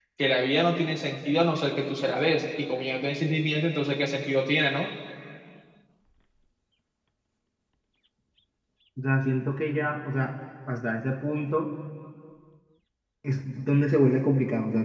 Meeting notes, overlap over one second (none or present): none